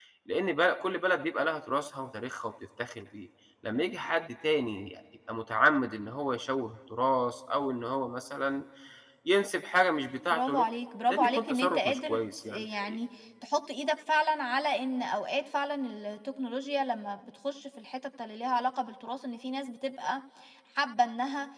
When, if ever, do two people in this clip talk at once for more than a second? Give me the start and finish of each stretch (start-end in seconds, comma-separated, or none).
11.1-13.0